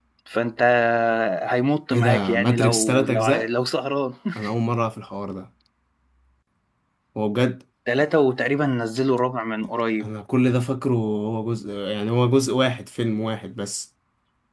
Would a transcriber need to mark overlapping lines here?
Yes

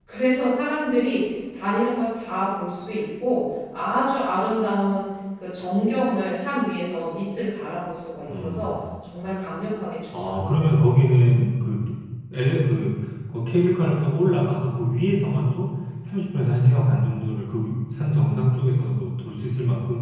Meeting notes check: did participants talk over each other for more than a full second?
No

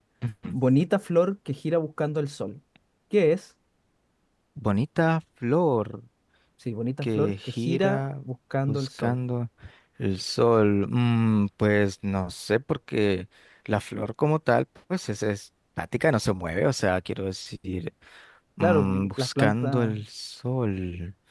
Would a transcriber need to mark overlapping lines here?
Yes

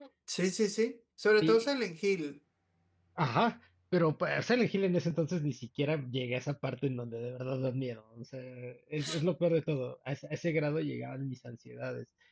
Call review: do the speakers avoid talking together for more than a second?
Yes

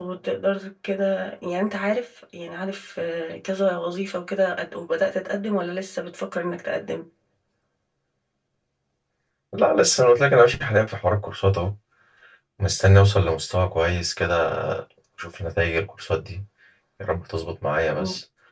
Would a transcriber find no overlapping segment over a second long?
Yes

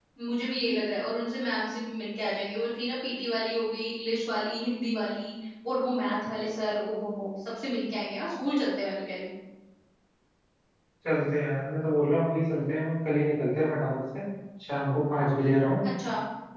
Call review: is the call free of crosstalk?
Yes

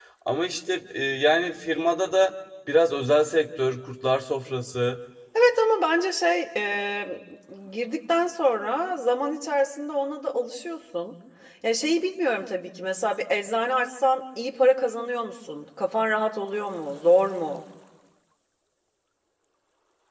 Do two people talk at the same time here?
No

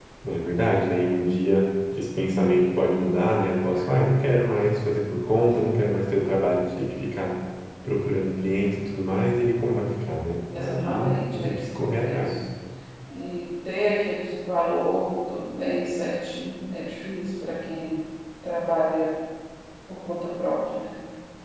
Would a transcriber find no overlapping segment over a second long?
No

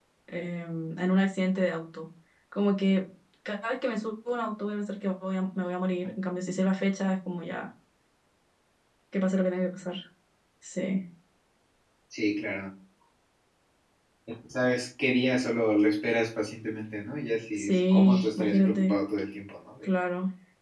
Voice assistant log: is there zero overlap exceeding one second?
No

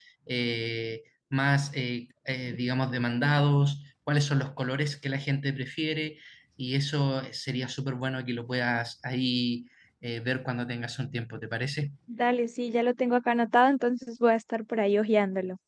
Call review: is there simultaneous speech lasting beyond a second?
No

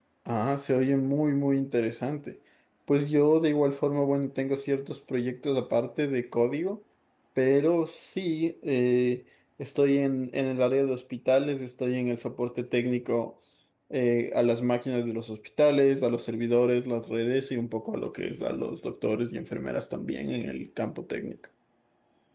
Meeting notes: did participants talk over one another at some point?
No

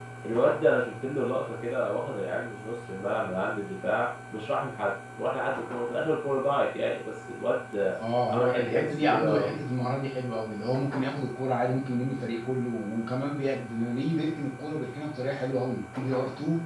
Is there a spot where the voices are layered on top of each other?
Yes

